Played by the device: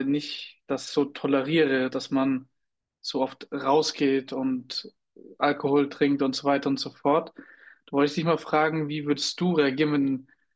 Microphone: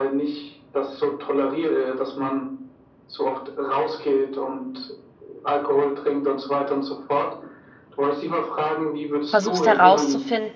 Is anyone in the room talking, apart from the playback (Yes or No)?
Yes